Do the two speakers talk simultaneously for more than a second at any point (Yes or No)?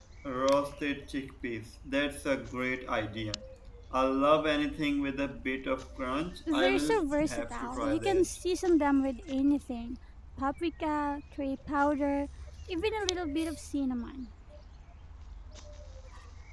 Yes